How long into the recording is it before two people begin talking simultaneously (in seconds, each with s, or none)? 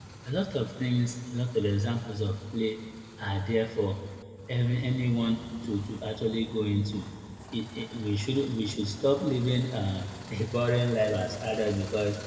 none